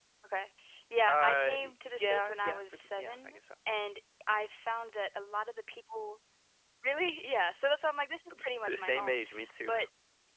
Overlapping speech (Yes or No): Yes